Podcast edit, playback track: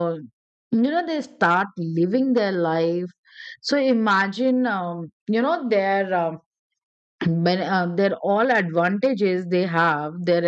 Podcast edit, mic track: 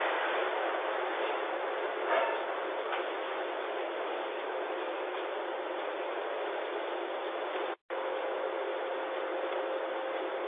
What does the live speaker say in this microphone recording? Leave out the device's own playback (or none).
none